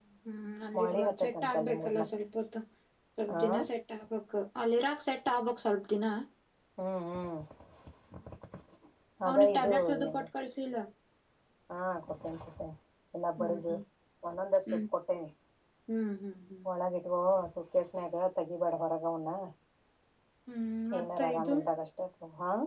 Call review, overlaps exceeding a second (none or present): present